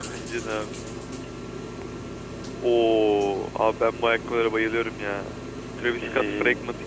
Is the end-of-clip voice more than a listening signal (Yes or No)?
No